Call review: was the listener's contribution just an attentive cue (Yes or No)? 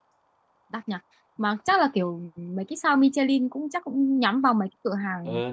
No